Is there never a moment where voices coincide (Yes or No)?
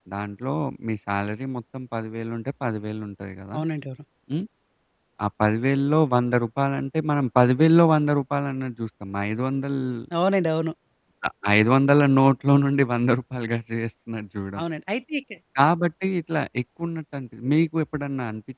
Yes